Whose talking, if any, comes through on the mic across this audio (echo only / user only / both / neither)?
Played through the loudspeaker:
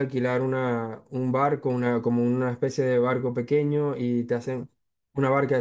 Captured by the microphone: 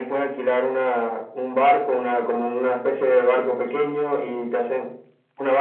echo only